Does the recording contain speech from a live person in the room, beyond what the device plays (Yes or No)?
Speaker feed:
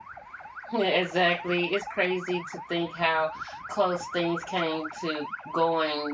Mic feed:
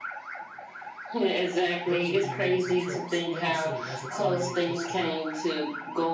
Yes